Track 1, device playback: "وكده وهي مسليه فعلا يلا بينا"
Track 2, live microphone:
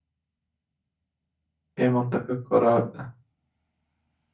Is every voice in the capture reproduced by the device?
No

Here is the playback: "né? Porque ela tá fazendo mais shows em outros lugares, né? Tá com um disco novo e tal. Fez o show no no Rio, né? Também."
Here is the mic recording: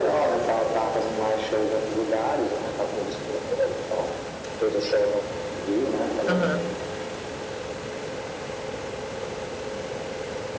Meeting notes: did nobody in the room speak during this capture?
No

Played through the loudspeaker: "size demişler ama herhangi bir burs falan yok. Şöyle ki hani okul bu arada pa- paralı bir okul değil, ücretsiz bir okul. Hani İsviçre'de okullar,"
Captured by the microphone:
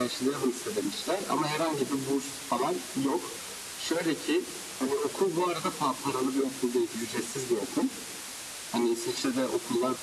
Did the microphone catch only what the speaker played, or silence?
Yes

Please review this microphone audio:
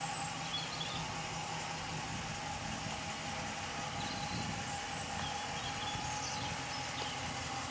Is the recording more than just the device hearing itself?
No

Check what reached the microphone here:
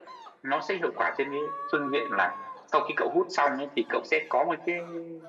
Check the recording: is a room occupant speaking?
No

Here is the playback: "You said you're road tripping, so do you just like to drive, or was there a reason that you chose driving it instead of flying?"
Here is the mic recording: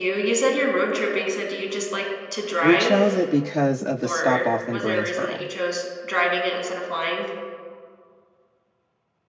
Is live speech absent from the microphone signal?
No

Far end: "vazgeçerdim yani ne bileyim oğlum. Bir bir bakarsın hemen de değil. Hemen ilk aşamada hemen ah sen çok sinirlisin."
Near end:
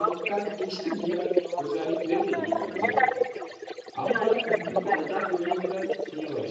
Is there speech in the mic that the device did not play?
Yes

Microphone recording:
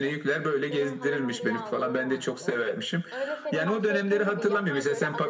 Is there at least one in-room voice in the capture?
Yes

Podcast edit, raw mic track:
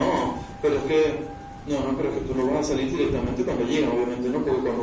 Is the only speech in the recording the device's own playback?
Yes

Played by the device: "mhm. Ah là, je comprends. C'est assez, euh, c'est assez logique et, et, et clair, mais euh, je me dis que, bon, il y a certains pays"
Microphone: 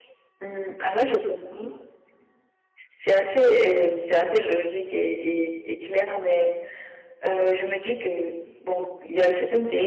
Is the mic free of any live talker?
Yes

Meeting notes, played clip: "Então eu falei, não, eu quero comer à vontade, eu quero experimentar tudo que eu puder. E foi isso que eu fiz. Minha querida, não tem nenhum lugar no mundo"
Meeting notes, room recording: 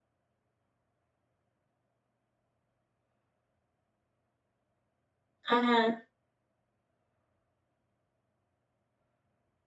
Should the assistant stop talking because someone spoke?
Yes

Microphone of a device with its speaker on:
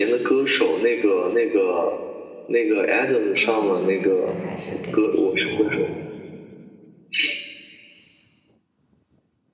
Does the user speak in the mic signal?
Yes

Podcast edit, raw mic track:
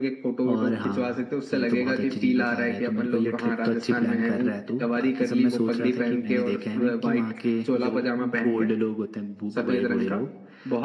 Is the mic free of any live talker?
Yes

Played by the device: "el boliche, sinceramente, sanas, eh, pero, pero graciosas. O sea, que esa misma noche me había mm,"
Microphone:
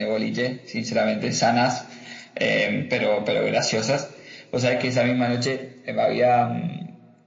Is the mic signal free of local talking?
Yes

